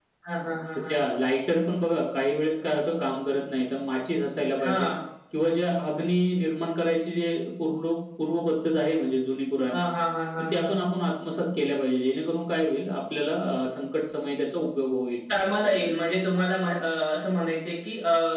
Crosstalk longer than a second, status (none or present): none